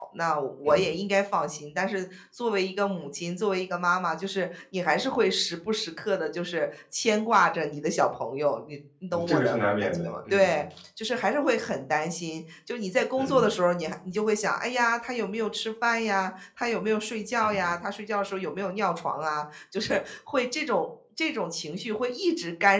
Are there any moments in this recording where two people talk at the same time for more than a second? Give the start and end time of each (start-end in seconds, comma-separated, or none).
9.1-10.6